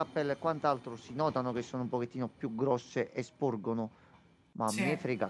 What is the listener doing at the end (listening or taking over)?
listening